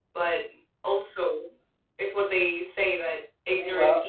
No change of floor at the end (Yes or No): Yes